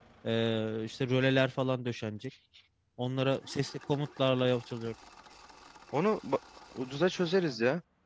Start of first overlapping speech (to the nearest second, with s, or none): none